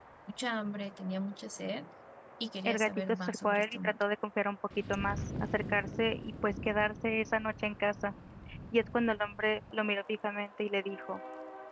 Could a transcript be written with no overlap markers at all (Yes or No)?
No